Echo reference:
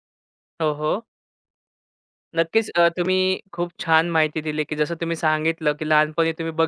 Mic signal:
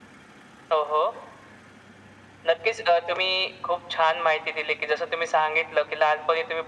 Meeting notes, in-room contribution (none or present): none